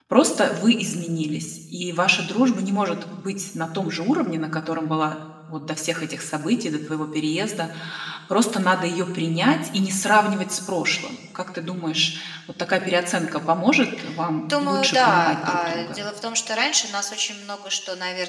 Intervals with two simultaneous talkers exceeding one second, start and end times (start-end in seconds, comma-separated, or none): 14.4-16.0